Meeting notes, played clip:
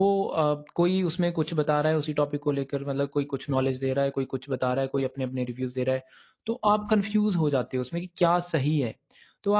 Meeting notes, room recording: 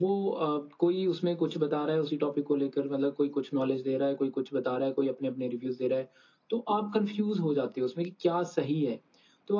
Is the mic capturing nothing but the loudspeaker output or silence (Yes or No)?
Yes